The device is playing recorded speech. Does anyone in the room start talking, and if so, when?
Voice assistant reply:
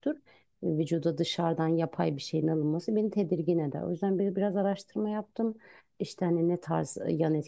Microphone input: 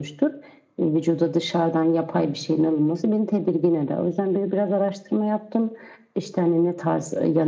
none

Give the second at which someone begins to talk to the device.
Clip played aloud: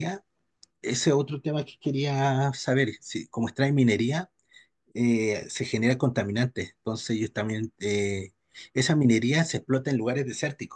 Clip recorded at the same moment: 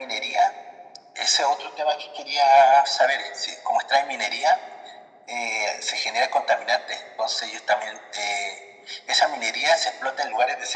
none

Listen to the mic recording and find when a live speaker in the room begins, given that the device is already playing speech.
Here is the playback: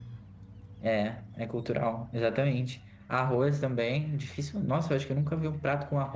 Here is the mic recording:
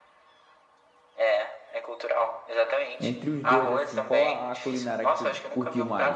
3.0 s

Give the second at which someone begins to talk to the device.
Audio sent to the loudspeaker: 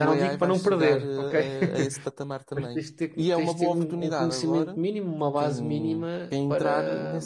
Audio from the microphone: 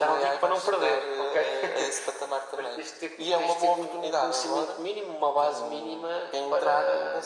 none

